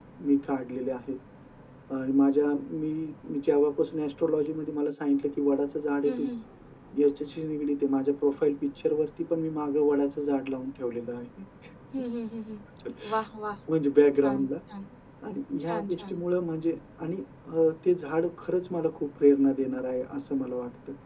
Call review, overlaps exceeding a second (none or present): none